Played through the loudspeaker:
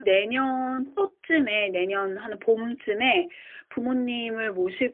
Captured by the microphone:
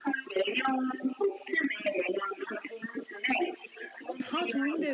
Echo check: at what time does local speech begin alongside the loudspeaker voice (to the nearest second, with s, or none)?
4 s